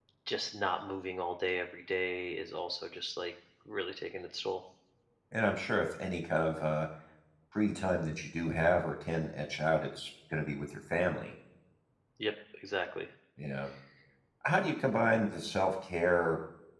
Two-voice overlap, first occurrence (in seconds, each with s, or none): none